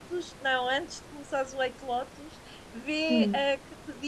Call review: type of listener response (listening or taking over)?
listening